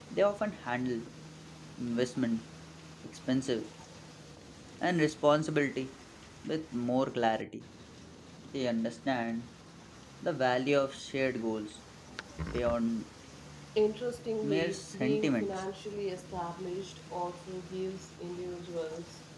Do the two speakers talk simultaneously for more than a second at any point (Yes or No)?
Yes